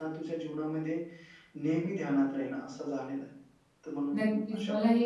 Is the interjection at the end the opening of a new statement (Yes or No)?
Yes